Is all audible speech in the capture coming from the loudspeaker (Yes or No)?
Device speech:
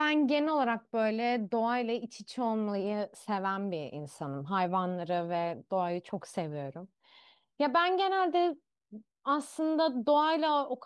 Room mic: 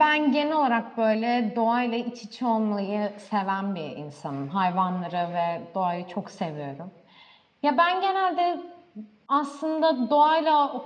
Yes